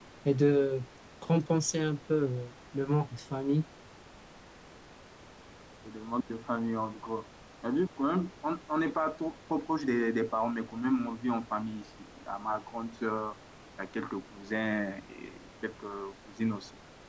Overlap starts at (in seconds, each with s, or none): none